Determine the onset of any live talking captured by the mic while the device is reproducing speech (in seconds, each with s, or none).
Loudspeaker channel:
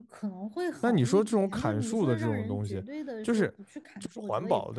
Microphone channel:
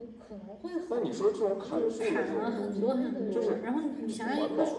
1.7 s